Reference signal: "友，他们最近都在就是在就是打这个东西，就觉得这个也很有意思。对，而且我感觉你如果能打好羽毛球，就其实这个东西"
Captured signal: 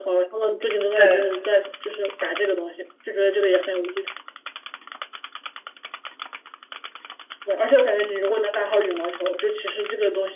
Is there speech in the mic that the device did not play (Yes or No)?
Yes